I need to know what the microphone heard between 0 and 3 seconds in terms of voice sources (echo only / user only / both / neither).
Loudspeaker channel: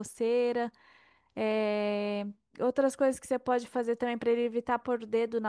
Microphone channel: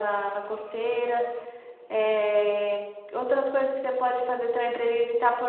echo only